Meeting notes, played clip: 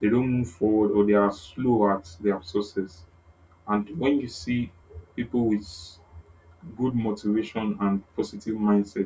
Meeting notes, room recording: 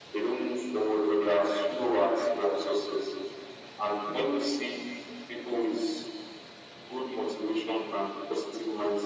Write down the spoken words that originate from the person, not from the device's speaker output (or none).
none